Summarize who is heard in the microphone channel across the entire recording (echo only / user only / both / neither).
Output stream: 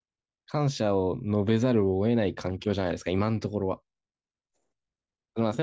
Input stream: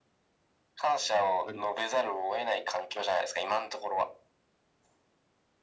both